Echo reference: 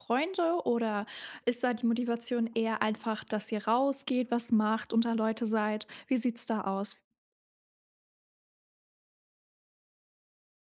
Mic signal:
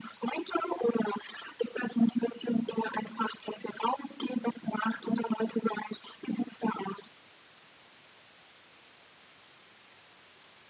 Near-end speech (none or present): none